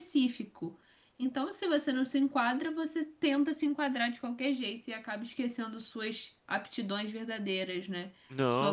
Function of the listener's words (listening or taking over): listening